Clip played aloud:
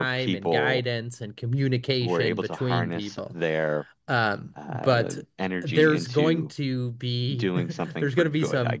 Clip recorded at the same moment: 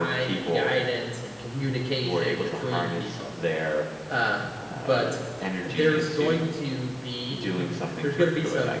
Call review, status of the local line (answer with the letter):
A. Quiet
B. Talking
A